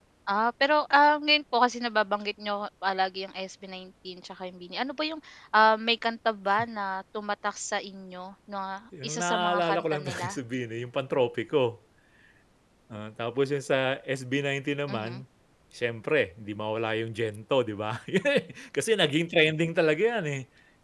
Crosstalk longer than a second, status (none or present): present